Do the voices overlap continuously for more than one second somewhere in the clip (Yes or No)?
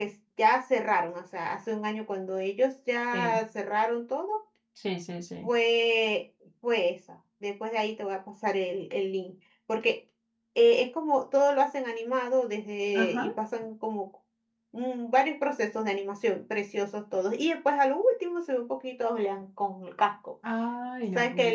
No